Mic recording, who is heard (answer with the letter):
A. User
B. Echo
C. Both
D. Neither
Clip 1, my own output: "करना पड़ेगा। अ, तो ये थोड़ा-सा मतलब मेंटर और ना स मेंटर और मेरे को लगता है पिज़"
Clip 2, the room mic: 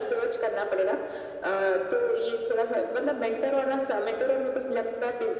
B